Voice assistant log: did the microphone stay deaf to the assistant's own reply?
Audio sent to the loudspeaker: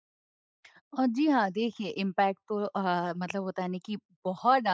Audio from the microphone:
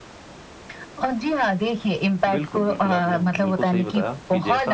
No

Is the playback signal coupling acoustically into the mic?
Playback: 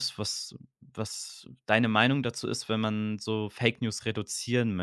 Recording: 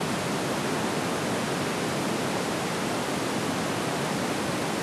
No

